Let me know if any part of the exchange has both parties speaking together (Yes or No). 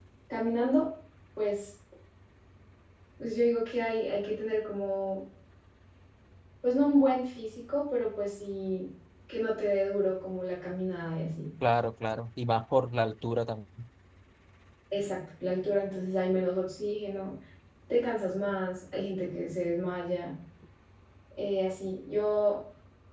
No